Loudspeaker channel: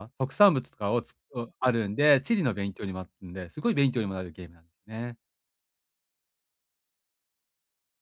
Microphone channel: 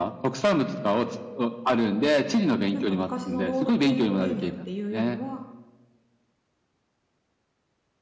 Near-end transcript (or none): なんか昔のロールプレイングゲームっていうよりは、